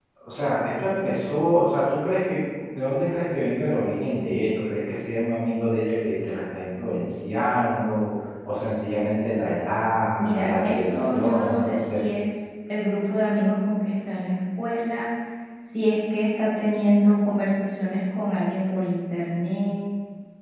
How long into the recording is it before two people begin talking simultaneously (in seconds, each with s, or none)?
10.2 s